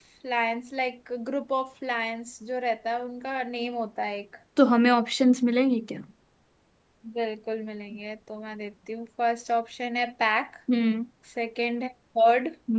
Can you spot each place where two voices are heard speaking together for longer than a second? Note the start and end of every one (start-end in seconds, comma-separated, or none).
none